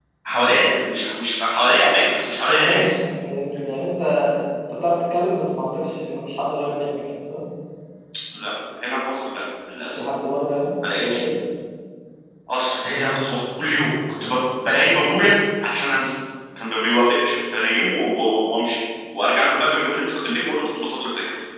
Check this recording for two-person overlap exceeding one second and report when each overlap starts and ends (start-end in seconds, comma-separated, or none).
none